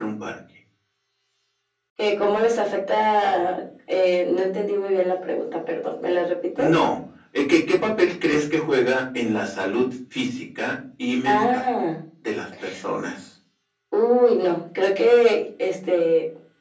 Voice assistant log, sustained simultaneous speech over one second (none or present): none